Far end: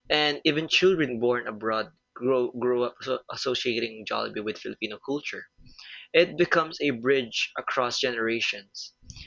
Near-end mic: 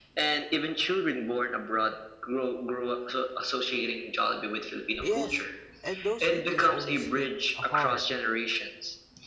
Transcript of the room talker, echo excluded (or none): Yes, and those videos always hit hard.